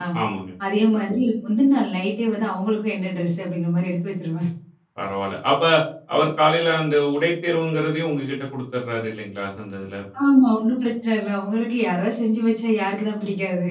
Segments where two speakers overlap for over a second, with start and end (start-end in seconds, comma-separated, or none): none